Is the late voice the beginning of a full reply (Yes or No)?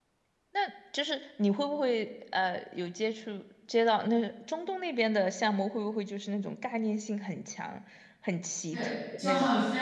Yes